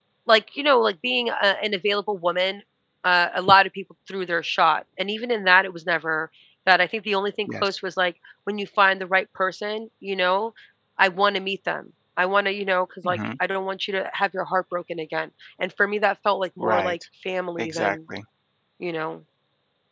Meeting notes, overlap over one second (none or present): none